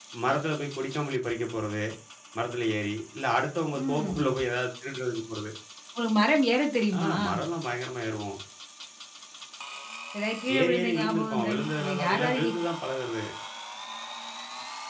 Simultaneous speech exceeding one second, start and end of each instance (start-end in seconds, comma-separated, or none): 10.6-12.5